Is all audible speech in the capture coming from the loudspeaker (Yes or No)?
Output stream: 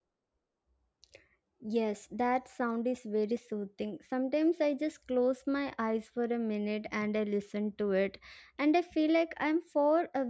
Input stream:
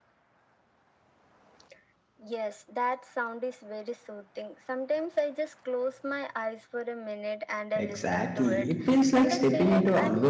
No